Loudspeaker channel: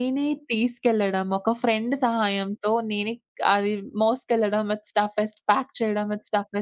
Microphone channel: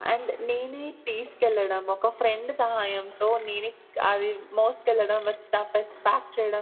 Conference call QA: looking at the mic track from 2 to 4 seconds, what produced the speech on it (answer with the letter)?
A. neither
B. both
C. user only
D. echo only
D